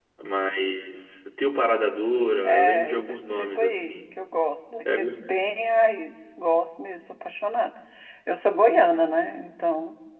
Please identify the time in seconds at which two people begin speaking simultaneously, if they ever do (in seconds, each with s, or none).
2.4 s